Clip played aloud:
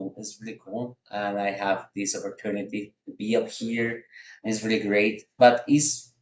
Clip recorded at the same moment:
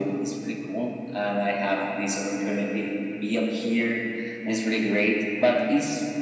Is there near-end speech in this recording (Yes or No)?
No